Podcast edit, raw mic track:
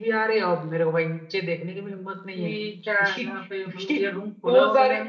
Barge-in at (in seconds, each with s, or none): 2.3 s